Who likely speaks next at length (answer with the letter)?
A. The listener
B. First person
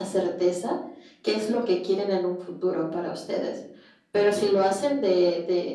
B